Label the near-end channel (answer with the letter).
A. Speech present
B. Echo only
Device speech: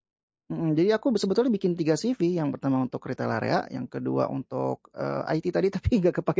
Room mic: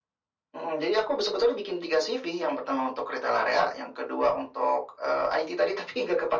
B